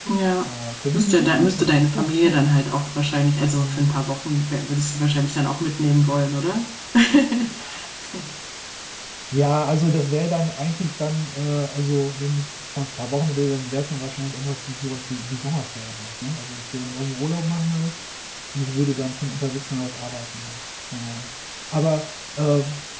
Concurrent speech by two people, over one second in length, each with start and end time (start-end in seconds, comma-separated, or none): 0.9-2.4